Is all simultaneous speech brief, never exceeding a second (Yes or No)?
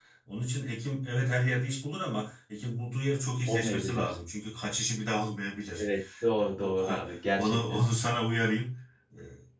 No